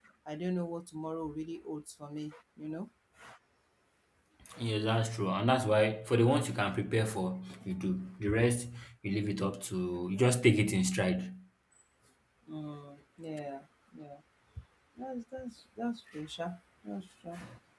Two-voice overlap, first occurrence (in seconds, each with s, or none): none